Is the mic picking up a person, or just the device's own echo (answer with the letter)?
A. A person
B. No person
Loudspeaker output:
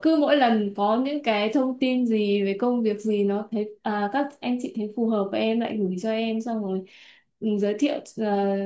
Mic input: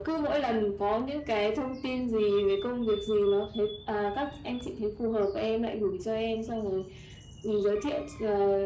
B